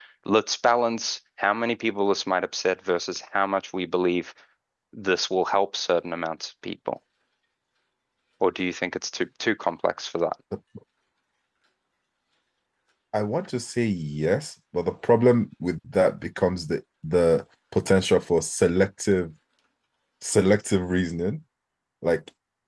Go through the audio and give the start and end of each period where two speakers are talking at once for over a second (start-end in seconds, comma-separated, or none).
none